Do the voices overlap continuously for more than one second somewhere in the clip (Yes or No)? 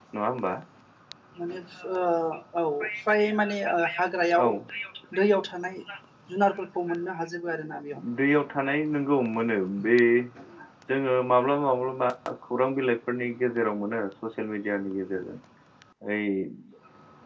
No